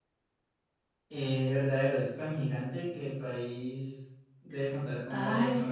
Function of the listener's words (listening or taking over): taking over